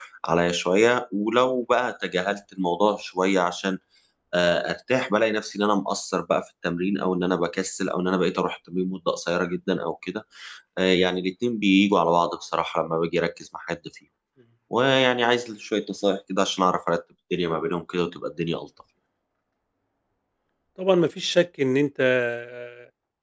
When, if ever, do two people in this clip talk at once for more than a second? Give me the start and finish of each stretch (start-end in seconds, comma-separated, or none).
none